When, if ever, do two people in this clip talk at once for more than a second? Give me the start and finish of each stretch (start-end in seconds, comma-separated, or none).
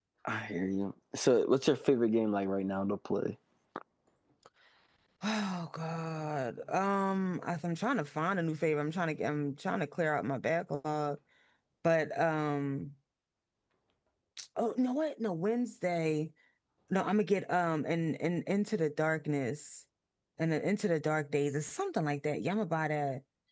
none